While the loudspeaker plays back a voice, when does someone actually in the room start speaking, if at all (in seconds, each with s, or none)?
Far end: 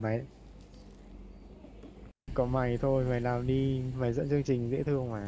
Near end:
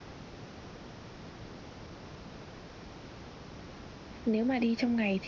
4.3 s